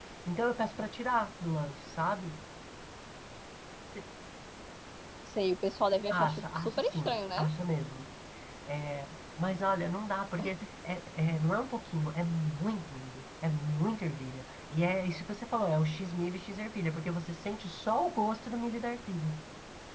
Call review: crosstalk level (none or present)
present